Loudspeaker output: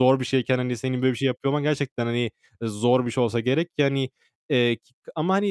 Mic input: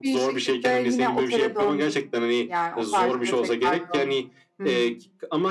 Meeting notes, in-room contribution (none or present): present